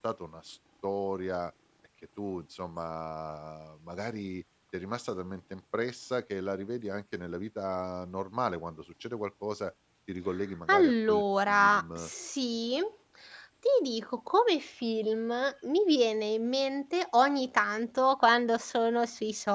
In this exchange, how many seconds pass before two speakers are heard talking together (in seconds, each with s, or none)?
10.7 s